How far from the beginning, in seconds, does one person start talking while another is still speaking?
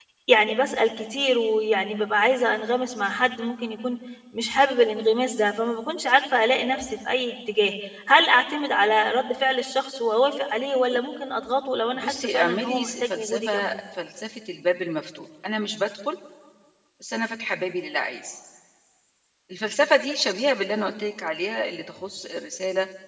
12 s

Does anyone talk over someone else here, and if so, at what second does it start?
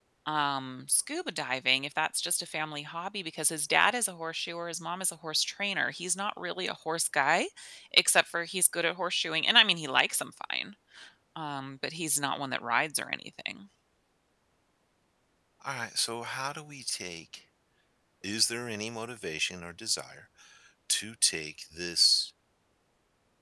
none

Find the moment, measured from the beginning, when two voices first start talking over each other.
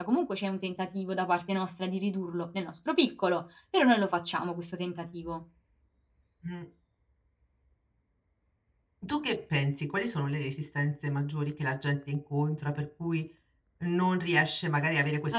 none

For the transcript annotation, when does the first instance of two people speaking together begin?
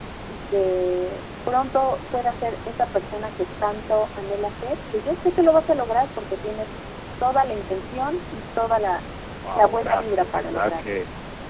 10 s

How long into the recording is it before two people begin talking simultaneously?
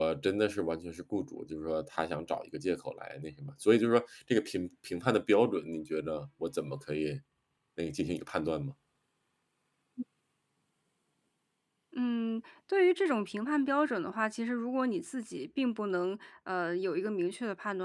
none

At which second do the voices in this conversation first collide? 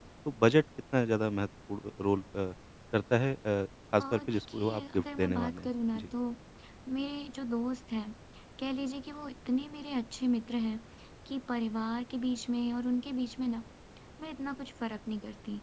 4 s

